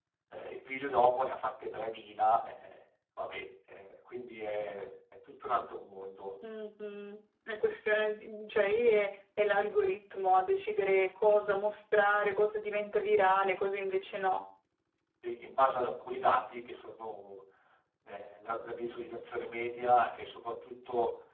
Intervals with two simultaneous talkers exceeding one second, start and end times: none

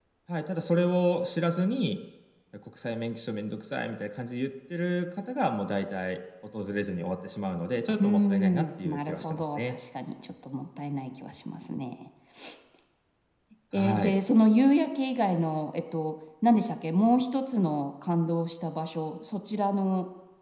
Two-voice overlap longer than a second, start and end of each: 8.0-9.7

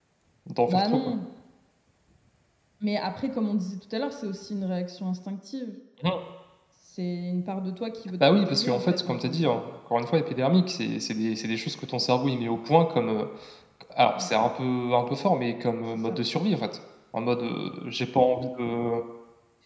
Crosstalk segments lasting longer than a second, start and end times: 8.3-9.6

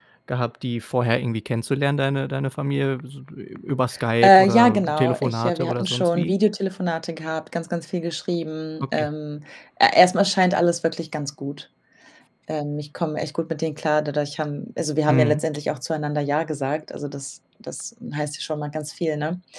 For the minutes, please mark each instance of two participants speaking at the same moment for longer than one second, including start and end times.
4.2-6.3

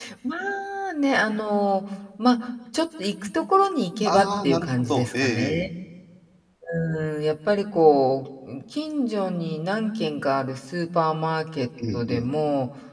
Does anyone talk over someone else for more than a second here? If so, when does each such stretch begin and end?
4.0-5.6

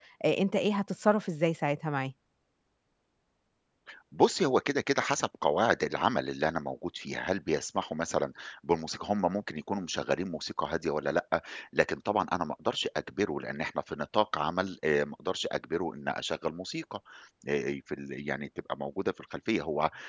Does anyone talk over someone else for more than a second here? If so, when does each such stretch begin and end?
none

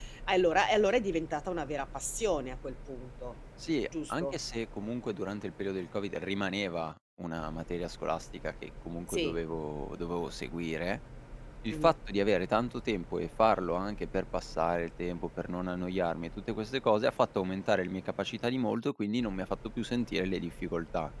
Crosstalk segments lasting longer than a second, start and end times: none

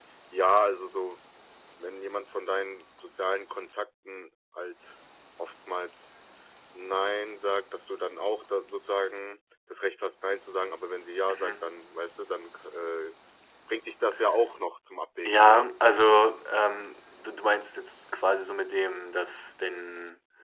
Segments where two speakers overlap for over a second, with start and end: none

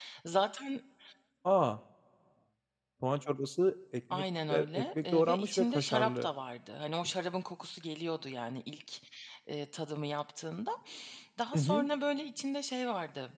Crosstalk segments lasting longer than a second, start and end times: 4.1-6.3

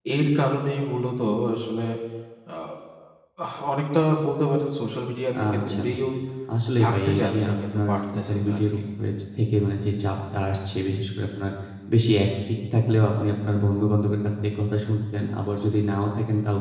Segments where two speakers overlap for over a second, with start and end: 6.8-8.7

